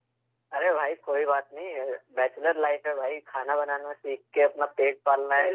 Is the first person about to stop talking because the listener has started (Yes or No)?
Yes